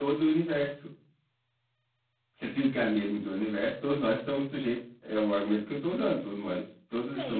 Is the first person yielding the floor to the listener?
Yes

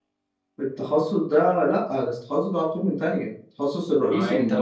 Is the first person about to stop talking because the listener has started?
Yes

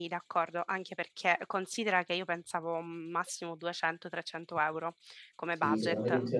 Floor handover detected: Yes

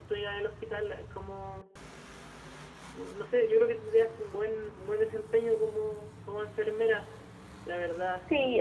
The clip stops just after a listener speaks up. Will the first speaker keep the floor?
No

